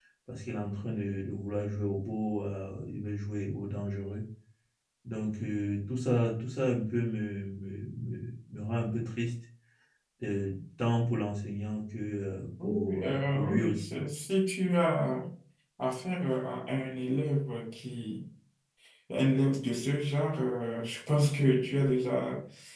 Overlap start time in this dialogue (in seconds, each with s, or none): 12.6 s